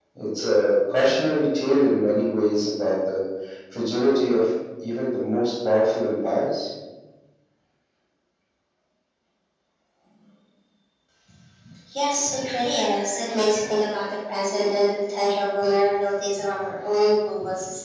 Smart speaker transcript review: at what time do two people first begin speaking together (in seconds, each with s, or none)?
none